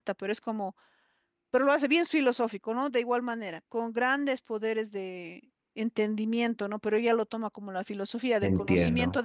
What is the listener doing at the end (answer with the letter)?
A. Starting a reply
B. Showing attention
B